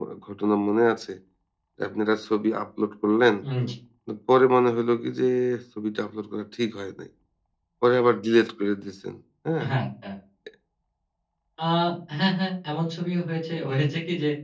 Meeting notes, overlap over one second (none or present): none